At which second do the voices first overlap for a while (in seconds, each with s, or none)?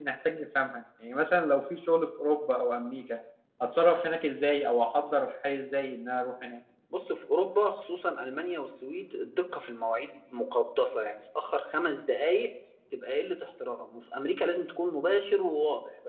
none